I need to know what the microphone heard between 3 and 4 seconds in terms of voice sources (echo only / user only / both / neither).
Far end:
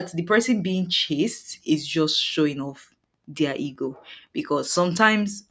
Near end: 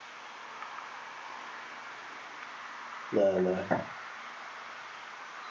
user only